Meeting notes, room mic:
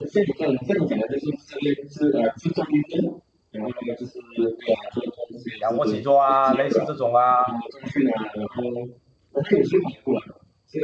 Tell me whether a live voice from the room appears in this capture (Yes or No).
Yes